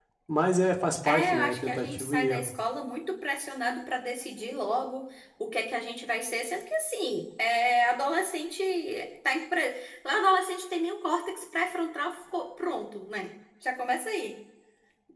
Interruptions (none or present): present